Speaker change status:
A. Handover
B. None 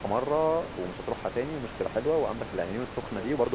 B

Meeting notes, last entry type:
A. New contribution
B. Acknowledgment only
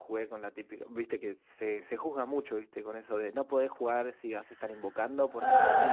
B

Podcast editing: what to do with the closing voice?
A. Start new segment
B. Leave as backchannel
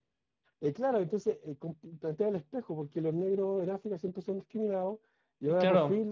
B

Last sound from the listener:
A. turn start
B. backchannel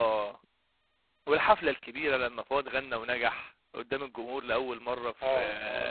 A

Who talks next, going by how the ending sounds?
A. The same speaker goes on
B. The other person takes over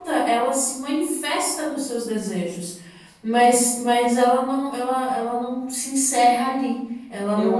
B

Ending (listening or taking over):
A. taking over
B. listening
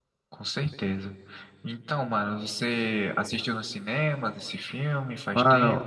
A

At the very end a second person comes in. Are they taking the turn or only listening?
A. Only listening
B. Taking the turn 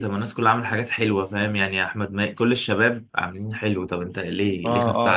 B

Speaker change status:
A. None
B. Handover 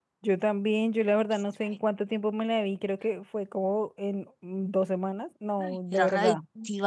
B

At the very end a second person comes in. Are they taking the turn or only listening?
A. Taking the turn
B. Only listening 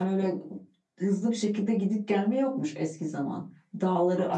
B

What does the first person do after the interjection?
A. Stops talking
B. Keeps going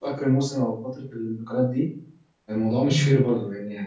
B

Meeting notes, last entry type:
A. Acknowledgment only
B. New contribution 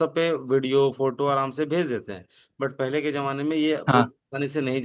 A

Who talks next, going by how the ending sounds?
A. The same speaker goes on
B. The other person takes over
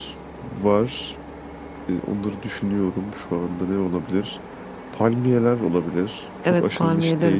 B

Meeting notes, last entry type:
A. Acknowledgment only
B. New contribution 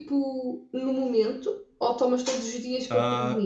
B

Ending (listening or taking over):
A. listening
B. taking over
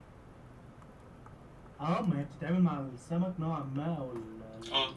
A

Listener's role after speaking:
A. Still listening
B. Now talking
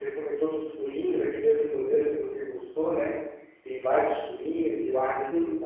A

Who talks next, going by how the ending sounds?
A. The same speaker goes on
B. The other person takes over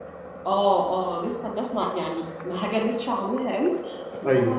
A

